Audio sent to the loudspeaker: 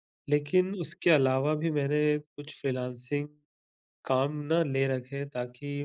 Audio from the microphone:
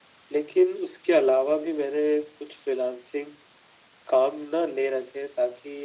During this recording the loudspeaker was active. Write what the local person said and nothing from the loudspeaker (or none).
none